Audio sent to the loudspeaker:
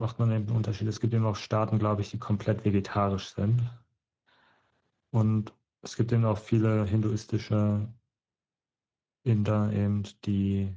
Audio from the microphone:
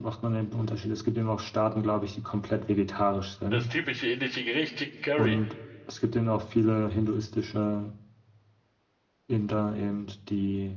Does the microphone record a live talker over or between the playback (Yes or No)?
Yes